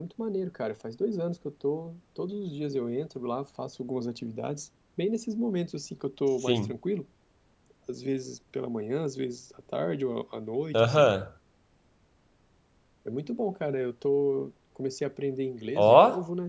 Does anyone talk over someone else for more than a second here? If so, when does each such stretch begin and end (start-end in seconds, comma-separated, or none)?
none